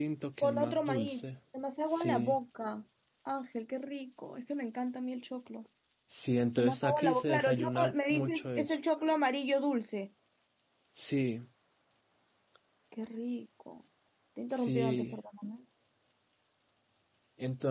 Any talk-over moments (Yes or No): Yes